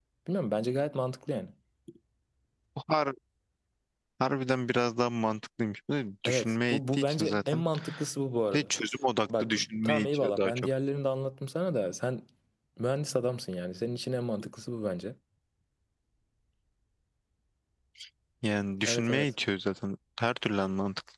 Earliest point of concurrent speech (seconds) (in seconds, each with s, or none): 6.2 s